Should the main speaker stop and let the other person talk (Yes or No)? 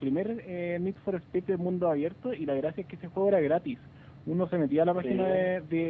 No